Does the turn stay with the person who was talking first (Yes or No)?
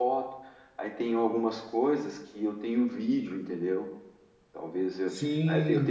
No